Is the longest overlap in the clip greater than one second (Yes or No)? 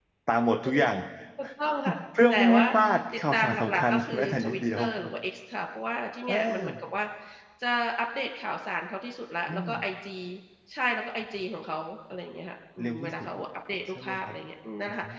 Yes